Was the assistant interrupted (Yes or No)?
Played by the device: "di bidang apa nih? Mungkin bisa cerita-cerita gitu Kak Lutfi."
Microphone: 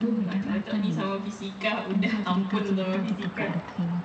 Yes